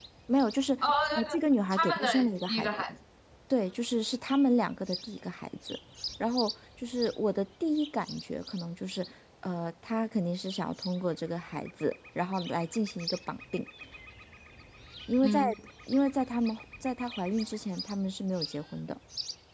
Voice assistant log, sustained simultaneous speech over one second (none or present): present